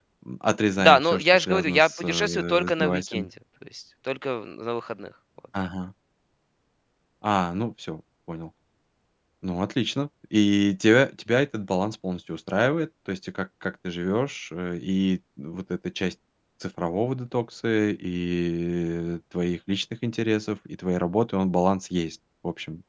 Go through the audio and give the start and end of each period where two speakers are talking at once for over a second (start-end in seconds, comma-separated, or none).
0.8-3.3